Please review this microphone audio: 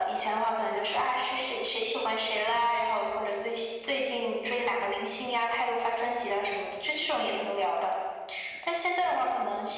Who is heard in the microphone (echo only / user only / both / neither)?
echo only